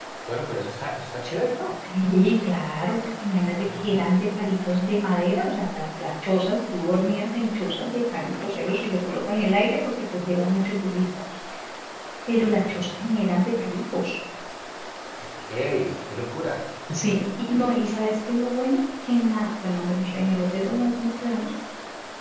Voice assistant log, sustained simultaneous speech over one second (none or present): none